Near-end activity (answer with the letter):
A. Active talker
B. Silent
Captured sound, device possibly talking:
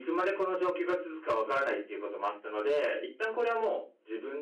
B